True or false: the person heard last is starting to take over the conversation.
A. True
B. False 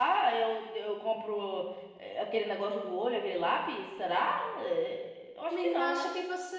A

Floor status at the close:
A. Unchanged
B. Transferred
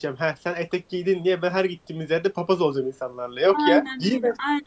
B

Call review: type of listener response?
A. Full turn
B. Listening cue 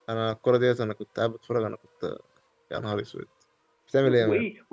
A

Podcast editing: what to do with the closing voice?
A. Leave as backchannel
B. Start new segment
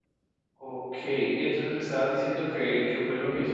B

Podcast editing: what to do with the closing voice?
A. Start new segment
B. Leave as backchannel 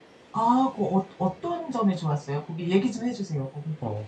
A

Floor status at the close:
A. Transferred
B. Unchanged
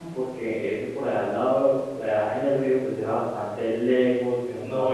A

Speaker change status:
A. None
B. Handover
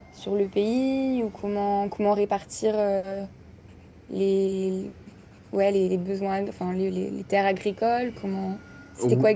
B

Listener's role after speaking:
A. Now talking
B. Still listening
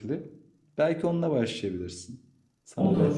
A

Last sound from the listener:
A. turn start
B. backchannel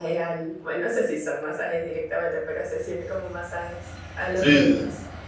A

